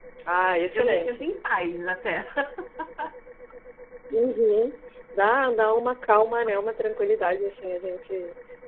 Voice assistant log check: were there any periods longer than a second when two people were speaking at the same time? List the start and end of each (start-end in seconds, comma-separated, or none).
none